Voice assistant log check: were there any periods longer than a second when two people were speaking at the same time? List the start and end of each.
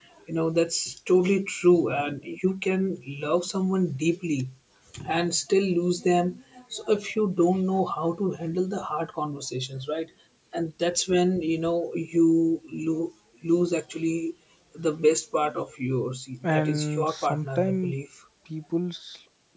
16.4-17.9

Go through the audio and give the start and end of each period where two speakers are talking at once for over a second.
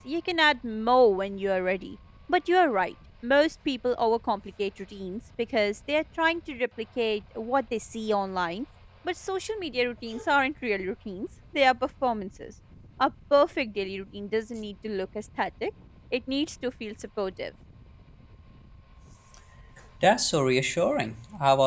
none

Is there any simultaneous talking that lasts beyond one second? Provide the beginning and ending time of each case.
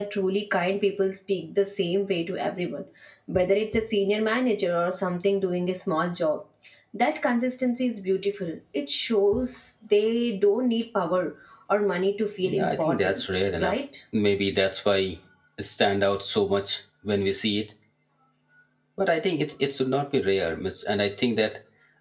12.4-13.8

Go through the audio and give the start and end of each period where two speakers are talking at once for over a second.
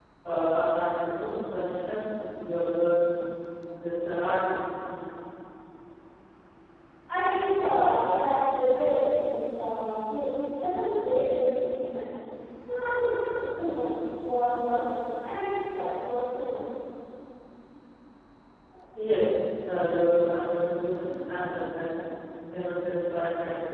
none

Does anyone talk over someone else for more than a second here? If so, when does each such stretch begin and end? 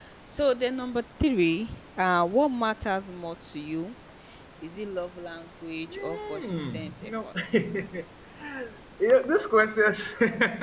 5.9-7.7

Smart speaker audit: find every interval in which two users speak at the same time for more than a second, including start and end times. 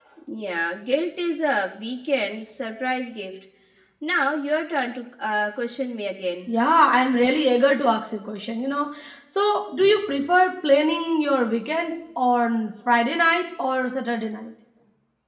none

